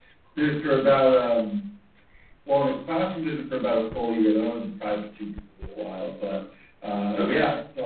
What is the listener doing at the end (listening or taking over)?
listening